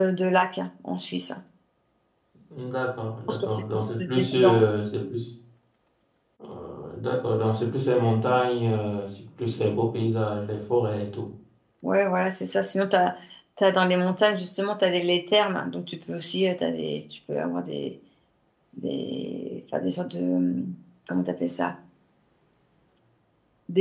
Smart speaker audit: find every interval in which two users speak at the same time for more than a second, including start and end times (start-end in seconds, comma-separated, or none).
3.3-4.6